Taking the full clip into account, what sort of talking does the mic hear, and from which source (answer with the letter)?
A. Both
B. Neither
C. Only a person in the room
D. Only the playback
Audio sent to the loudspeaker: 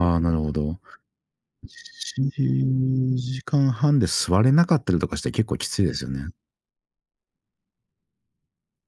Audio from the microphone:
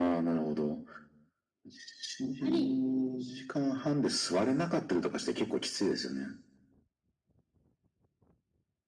A